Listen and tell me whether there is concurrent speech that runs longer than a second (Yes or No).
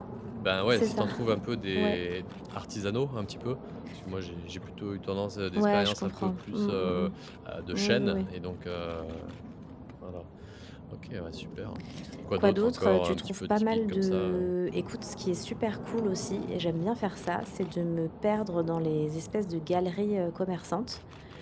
Yes